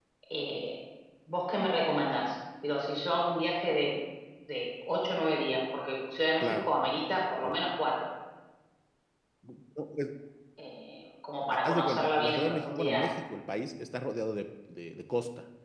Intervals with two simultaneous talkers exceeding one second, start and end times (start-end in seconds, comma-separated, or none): 11.5-13.0